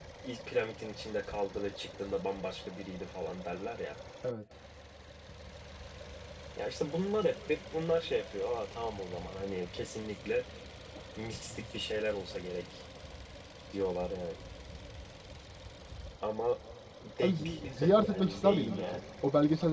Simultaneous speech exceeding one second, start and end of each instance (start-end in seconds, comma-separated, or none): 17.2-19.0